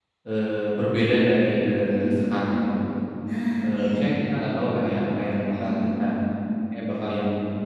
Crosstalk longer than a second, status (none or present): none